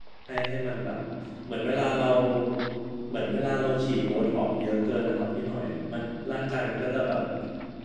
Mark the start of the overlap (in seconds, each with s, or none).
none